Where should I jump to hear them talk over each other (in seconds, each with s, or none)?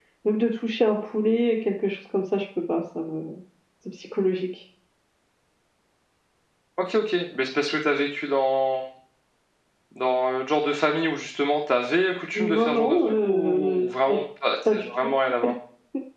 12.4 s